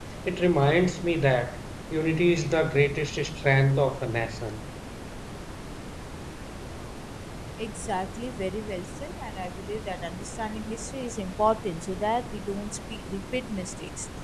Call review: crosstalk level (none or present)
none